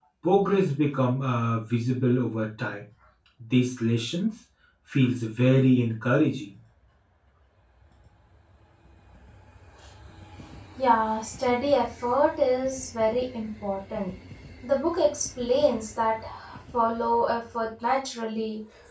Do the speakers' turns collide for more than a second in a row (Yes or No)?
No